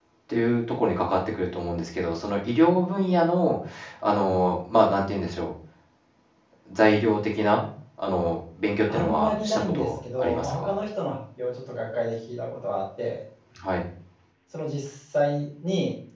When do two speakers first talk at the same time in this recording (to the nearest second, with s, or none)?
9 s